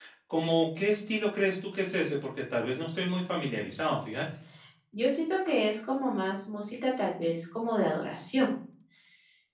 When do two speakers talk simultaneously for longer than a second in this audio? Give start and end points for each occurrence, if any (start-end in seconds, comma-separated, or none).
none